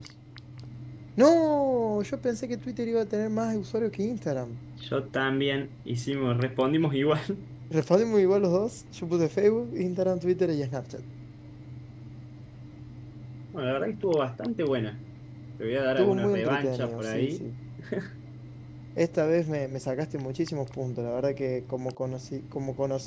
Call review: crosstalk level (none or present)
present